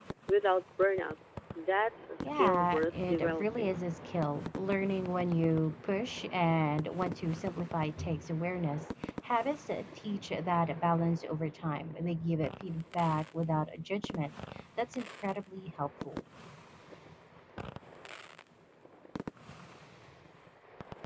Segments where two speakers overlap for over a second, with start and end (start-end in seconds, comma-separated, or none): 2.2-3.8